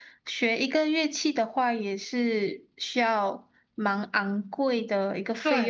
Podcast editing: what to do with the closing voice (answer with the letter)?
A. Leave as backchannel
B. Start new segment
B